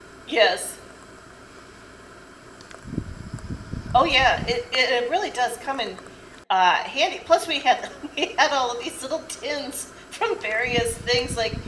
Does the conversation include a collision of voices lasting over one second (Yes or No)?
No